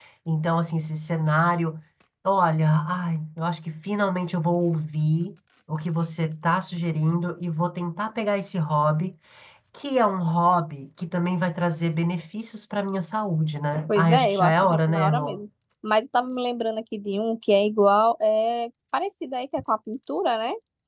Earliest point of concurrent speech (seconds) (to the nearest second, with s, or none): 14 s